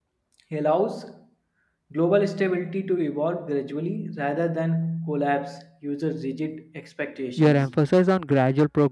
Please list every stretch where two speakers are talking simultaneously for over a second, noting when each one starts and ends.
none

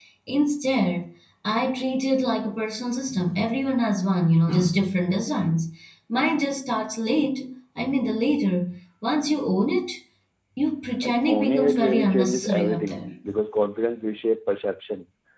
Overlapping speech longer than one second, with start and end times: 11.0-13.0

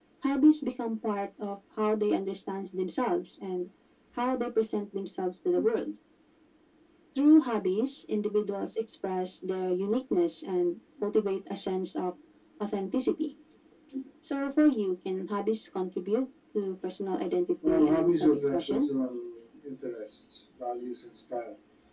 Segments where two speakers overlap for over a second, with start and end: 17.7-18.9

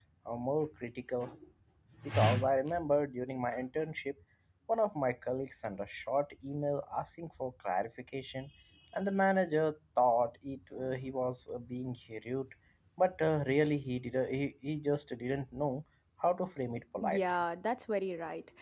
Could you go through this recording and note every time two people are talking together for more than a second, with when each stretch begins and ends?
none

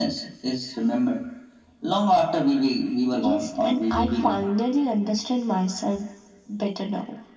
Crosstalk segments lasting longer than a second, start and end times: 3.1-4.4

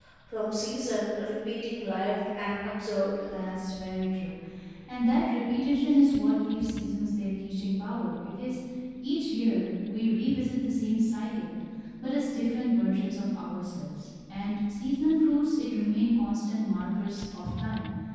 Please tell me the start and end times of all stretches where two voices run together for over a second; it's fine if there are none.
none

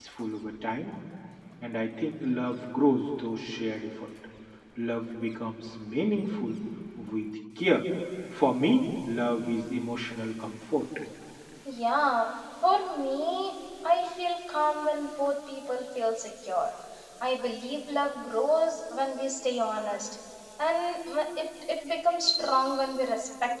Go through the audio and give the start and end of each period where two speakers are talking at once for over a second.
none

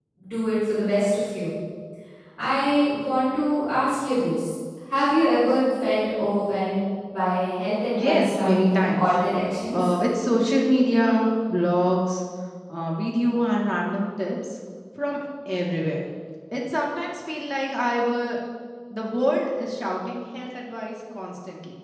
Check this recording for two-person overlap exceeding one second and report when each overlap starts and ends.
8.0-9.2

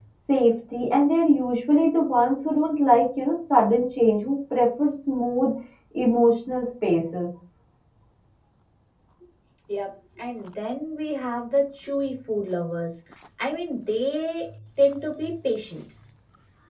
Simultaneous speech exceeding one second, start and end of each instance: none

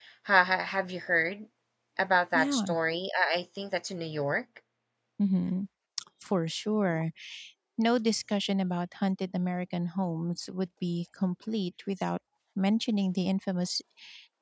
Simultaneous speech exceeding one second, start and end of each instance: none

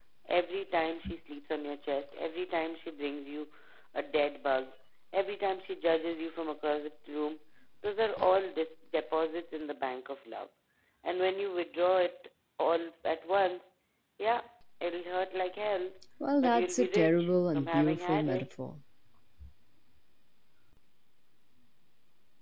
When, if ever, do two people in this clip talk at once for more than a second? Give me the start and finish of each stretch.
16.4-18.5

